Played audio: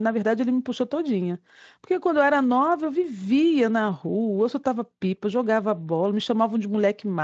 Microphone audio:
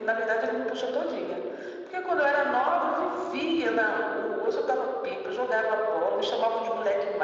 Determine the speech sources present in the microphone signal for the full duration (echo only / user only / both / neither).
echo only